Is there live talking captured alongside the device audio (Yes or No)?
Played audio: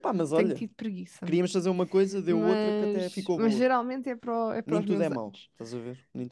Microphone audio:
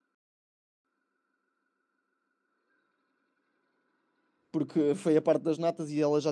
Yes